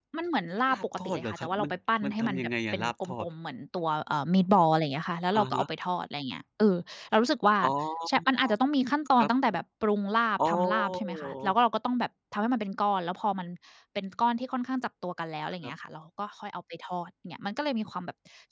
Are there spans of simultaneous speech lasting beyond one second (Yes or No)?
Yes